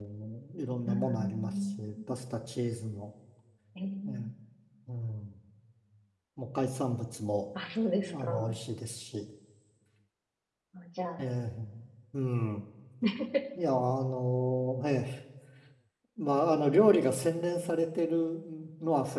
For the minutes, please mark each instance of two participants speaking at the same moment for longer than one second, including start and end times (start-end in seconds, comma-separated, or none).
0.9-2.2